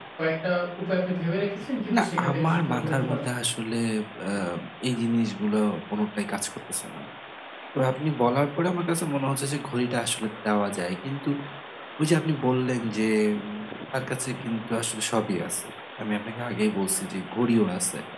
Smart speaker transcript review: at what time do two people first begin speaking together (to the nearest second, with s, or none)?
2 s